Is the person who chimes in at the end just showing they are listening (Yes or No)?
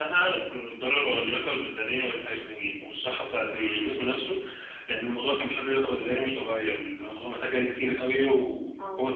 Yes